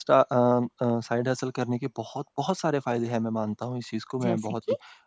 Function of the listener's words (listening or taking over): listening